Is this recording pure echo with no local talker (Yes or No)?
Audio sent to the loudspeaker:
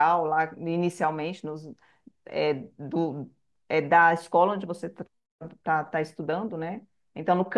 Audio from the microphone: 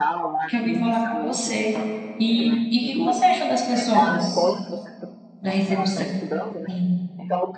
No